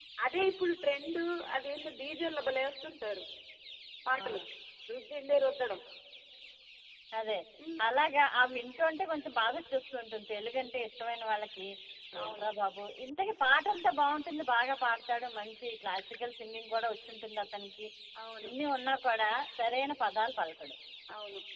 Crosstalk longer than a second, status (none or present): none